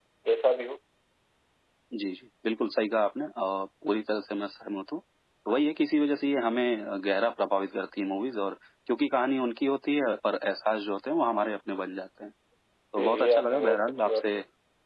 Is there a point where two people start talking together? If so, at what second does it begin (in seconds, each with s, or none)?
12.9 s